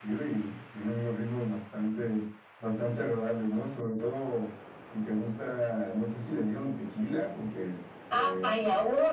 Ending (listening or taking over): taking over